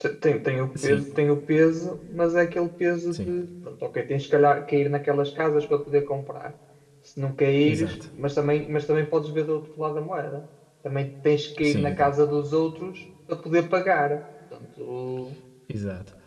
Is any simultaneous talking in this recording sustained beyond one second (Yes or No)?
No